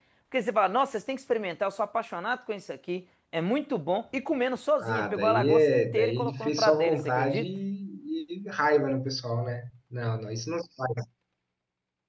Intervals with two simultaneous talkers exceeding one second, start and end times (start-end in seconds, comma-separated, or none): 4.8-7.5